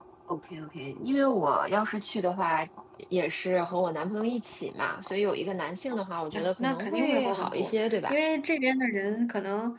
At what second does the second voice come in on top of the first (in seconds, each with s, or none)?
6.3 s